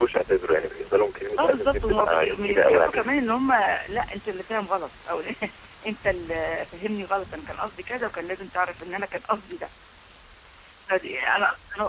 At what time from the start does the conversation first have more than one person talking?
1.4 s

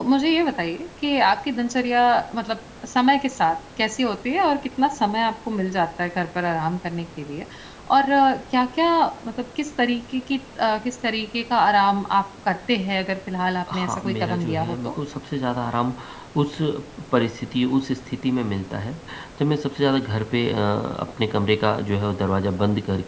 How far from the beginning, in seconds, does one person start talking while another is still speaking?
13.7 s

